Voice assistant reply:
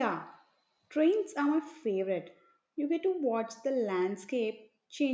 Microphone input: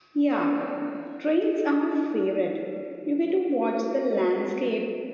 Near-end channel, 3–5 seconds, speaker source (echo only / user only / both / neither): echo only